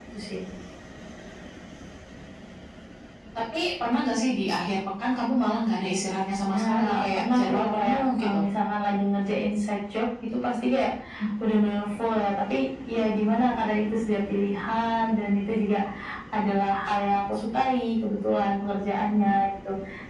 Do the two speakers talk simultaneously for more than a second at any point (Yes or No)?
Yes